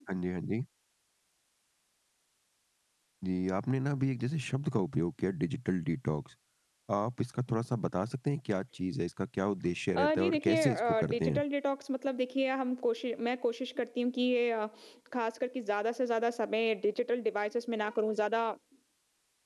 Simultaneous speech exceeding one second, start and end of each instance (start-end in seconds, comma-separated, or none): 10.0-11.4